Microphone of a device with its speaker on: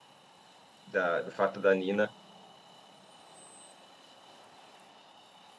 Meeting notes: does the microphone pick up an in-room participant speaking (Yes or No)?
Yes